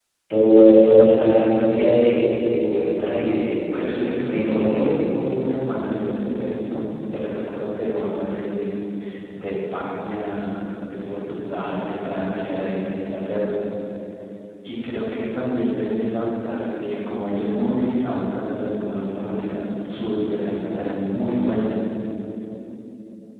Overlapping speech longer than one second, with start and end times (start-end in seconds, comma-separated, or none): 3.8-5.1